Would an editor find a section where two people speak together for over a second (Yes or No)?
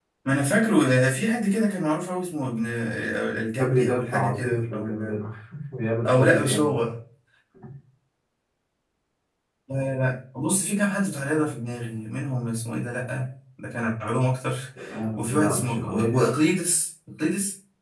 Yes